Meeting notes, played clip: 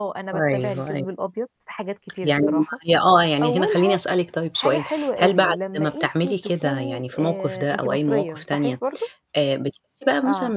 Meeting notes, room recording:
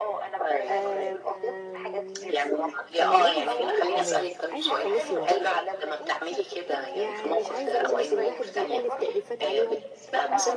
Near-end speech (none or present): present